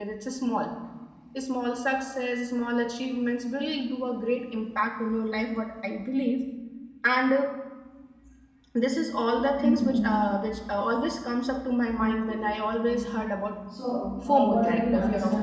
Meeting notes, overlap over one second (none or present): present